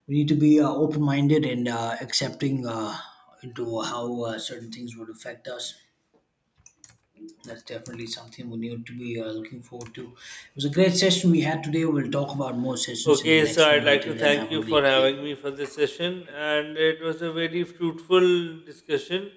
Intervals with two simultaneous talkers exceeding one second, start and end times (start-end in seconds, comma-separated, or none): 13.0-15.1